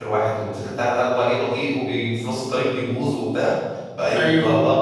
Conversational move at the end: listening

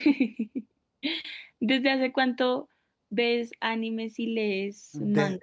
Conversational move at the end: taking over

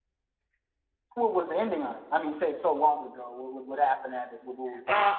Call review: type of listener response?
taking over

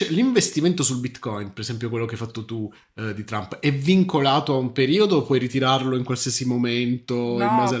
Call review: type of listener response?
taking over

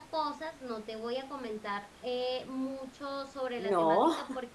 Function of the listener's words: listening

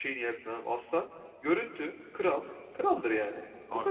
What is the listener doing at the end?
taking over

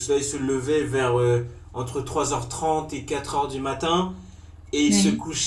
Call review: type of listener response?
listening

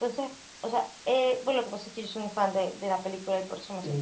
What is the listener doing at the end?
taking over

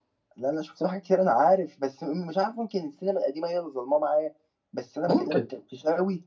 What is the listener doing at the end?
listening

